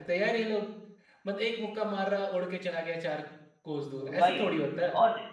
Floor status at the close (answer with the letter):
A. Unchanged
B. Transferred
B